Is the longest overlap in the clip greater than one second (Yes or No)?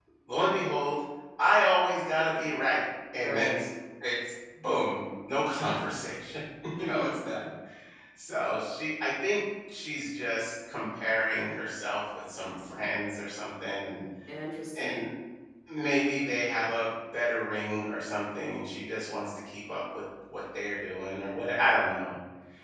No